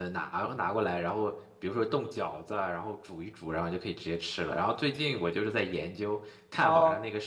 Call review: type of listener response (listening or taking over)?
taking over